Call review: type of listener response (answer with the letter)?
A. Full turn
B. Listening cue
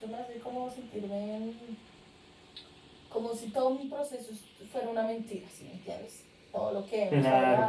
B